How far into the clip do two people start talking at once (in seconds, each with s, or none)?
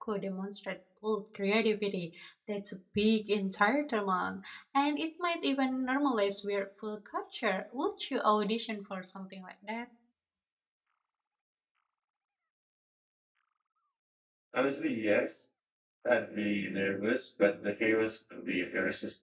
none